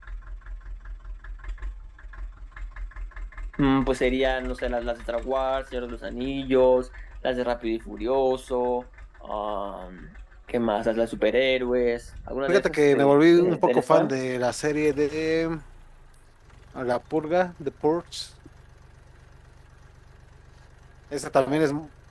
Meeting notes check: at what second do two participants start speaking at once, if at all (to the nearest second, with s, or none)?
12 s